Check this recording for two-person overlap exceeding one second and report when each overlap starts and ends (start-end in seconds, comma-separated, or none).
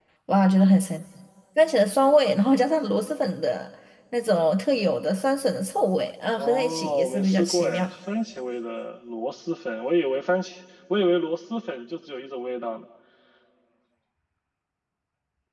6.4-7.9